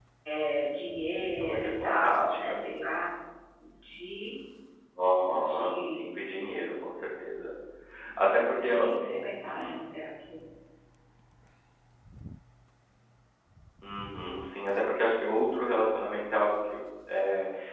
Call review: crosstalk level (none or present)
present